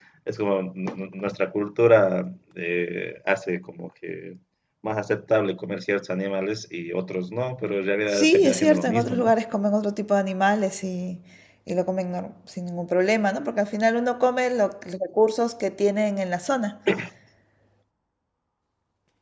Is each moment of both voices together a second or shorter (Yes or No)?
No